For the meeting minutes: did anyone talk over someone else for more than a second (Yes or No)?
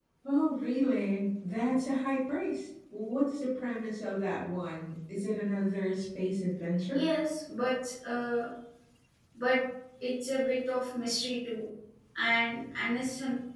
No